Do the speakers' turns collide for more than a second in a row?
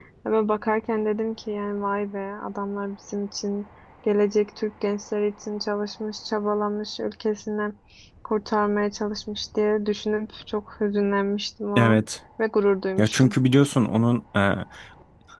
No

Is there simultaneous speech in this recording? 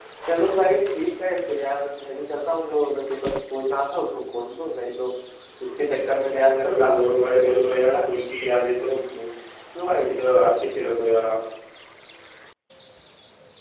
Yes, from 6.6 s

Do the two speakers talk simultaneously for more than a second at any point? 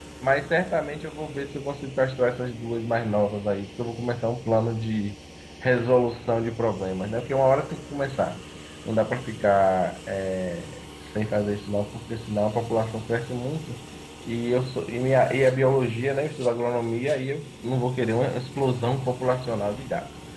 No

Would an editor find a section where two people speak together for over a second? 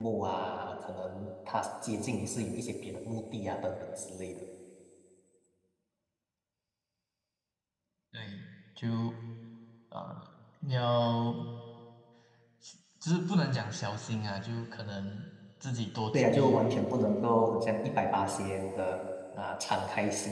No

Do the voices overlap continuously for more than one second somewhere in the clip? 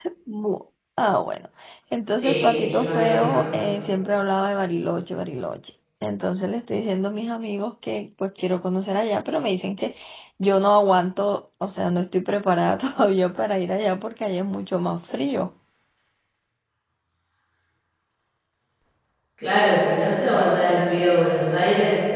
Yes, from 2.2 s

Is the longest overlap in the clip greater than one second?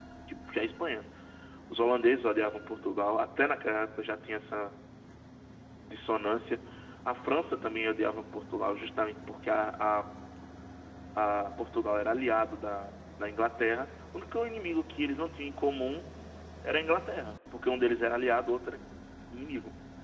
No

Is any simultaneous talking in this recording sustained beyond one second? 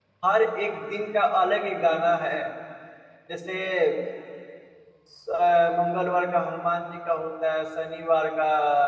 No

